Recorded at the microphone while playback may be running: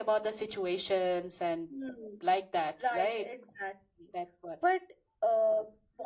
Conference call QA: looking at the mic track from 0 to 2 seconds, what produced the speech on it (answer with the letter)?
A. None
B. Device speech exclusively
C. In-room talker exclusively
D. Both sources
B